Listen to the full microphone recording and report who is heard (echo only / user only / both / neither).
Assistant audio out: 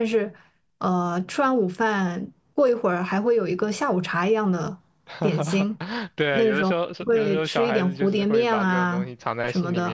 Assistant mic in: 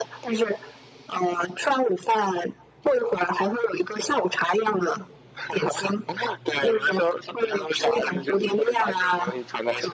echo only